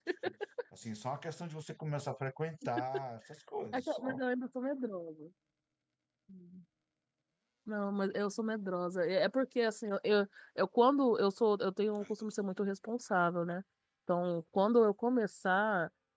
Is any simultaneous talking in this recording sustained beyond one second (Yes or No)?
No